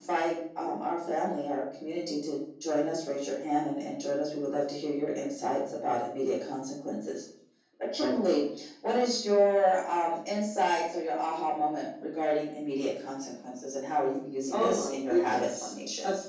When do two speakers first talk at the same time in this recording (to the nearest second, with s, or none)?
15 s